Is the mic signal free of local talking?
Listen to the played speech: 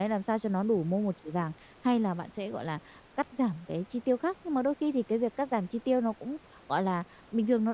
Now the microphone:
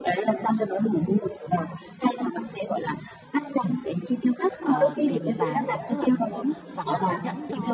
No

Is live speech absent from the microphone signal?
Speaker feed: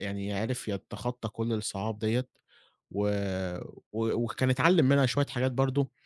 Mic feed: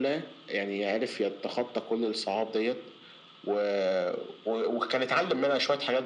Yes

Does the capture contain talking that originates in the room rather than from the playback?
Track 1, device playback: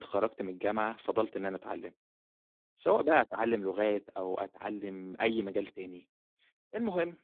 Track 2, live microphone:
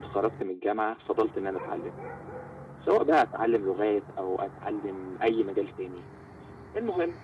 No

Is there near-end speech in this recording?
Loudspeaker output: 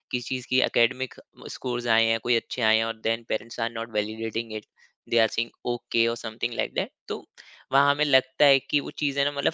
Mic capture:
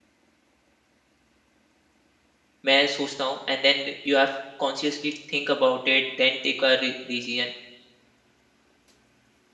Yes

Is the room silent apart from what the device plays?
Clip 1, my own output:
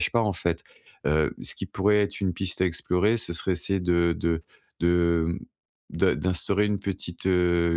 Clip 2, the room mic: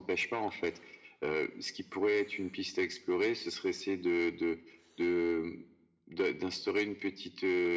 Yes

